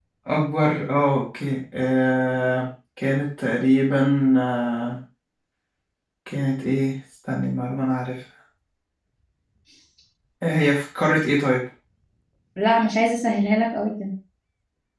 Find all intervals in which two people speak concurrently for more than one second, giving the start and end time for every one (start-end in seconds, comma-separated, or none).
none